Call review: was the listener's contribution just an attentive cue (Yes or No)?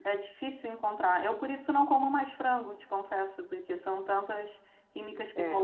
Yes